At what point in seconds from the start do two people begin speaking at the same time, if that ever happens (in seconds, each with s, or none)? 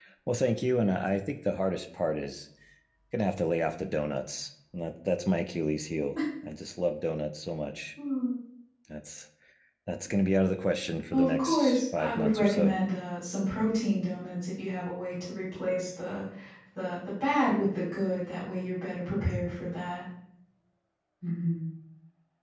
11.1 s